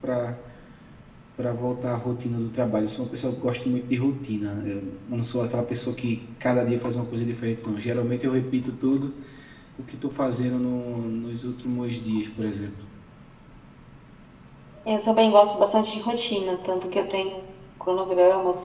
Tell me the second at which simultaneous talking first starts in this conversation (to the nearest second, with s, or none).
none